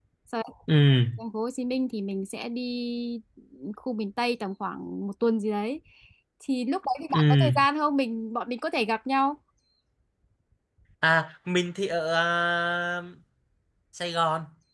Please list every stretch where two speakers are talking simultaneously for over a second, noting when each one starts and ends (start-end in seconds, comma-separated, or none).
none